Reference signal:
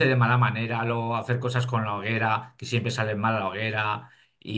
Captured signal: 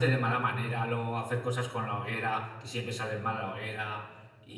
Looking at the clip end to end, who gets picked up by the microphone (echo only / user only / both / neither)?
echo only